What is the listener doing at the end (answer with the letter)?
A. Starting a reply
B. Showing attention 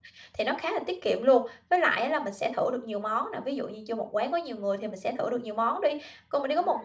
B